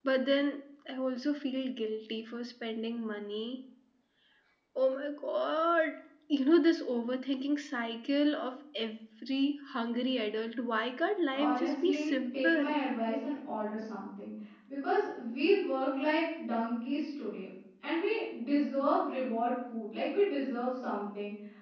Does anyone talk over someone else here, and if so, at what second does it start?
11 s

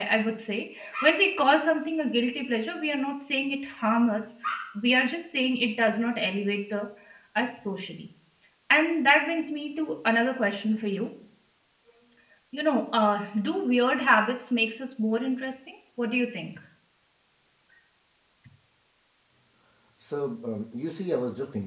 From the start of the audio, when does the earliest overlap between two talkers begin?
none

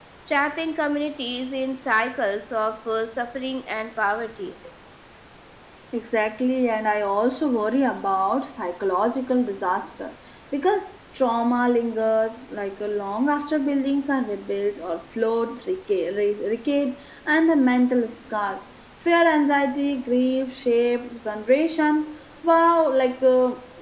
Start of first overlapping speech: none

